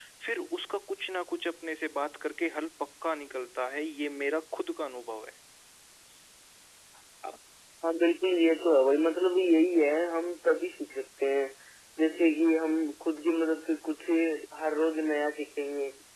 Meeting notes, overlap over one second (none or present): none